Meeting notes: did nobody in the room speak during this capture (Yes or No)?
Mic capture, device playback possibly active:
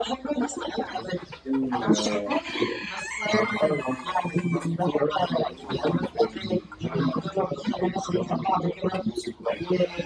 No